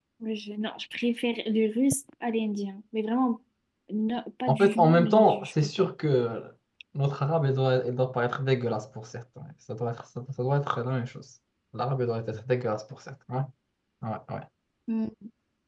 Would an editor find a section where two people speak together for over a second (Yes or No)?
Yes